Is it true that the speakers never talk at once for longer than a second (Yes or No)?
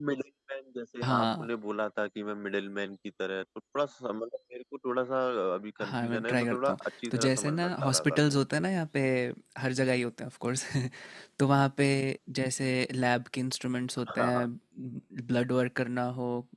No